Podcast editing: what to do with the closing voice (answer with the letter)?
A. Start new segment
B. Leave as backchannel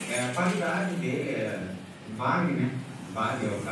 B